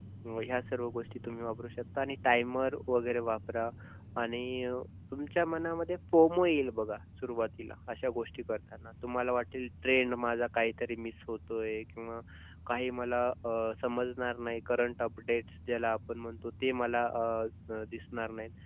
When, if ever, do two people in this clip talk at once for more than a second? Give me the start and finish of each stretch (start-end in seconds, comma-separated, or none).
none